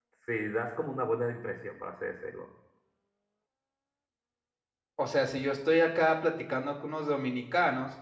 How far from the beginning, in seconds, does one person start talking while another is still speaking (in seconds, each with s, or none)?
none